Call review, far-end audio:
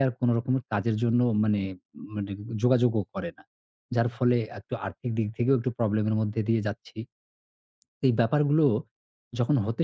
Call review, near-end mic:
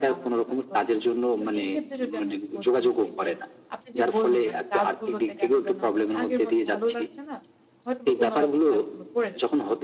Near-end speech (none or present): present